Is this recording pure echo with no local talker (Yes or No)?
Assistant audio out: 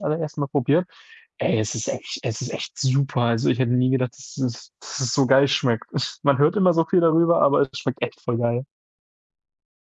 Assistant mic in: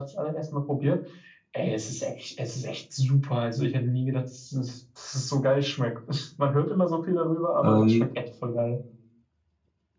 No